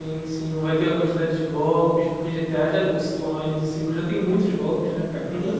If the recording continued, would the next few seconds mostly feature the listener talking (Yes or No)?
Yes